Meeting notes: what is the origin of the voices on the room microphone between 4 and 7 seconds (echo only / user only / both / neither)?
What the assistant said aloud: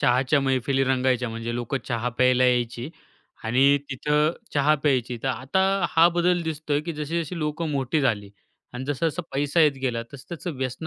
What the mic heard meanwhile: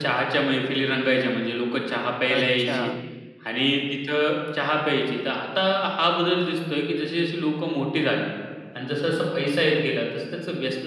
echo only